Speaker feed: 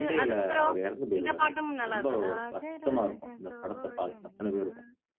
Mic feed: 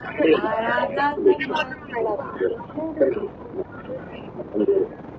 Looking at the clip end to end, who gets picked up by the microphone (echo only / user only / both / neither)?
both